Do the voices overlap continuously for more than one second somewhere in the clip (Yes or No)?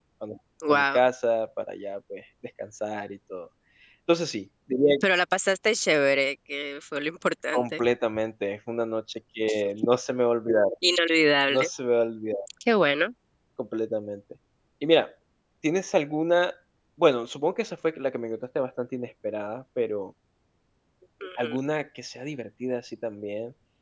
No